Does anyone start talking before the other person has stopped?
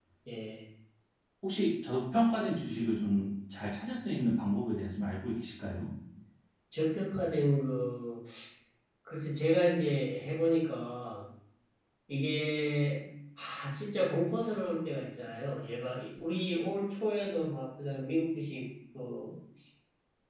No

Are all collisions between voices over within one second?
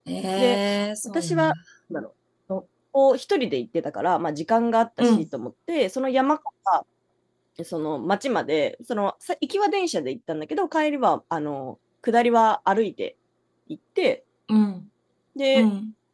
Yes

